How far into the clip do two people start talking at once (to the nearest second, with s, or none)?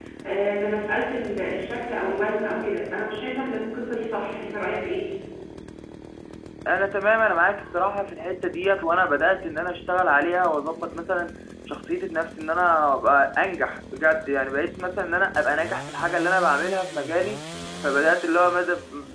none